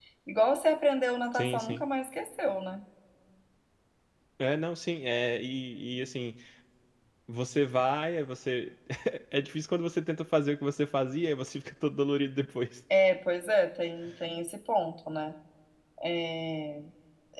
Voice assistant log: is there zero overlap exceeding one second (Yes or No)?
Yes